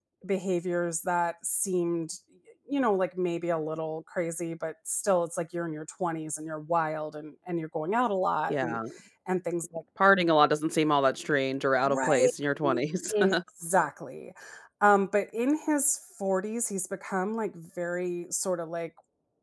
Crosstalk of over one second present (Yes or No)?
No